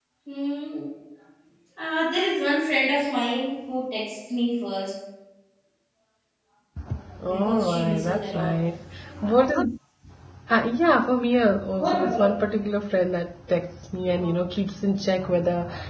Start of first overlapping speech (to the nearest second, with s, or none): 7 s